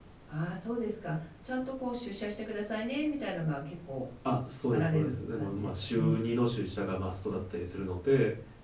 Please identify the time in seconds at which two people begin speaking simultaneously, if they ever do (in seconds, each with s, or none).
4.7 s